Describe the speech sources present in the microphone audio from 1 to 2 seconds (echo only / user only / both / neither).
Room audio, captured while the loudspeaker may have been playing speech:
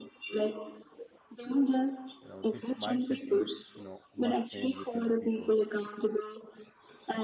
echo only